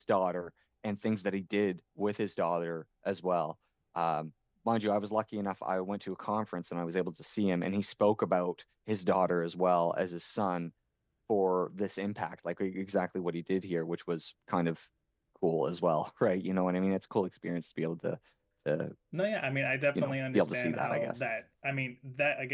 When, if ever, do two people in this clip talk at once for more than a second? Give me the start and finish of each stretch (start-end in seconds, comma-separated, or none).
20.0-21.2